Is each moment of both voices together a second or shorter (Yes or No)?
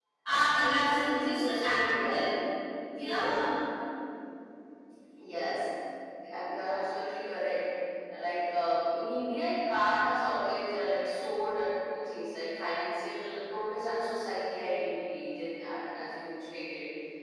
No